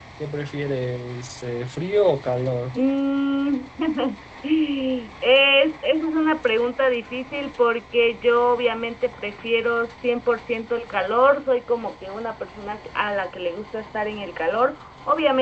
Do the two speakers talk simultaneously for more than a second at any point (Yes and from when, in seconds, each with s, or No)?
No